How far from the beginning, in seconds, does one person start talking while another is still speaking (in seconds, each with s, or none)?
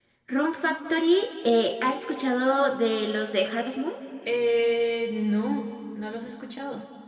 none